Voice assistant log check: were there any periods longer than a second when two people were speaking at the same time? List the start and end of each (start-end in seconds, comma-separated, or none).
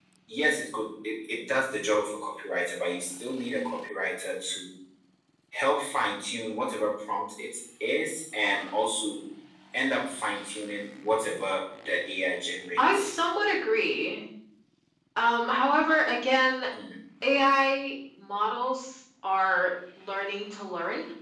none